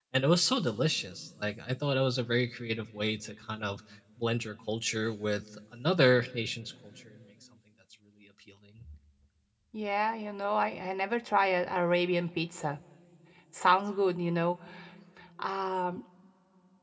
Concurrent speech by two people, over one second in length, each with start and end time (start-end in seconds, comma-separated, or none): none